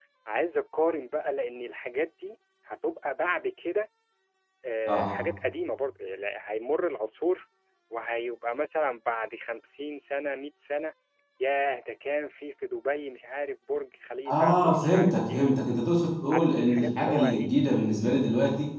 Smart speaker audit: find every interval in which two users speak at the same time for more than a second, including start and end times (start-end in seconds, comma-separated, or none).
14.3-15.5, 16.3-17.5